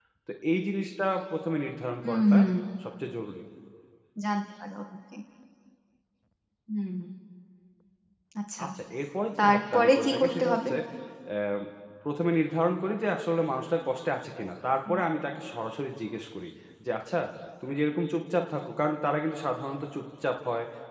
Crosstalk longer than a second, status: present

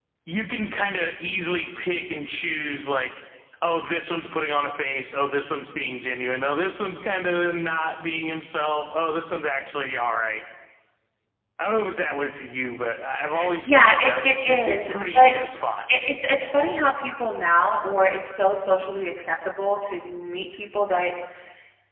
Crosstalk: present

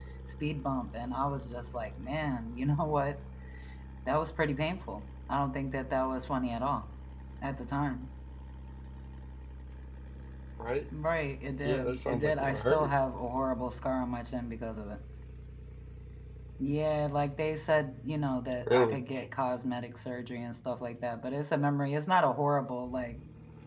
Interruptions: present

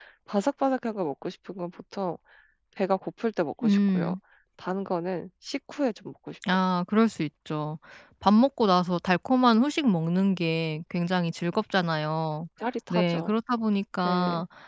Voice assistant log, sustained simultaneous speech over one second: none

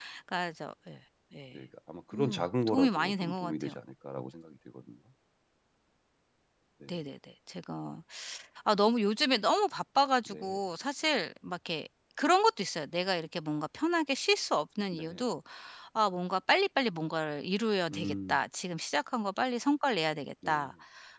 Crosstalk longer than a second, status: present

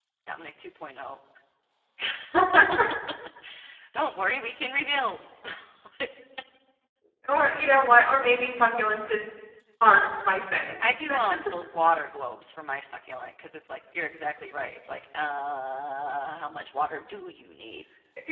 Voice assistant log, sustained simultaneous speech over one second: none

